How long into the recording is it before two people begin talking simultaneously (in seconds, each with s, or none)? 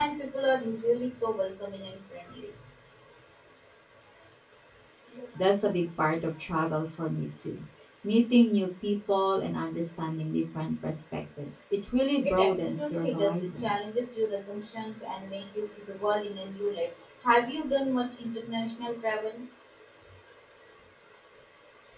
12.2 s